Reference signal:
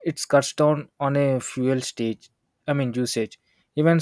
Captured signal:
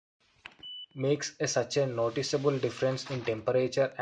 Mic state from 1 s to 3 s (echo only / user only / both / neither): user only